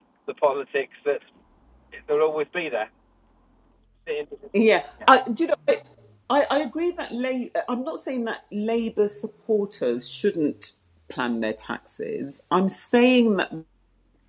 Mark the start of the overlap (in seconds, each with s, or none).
none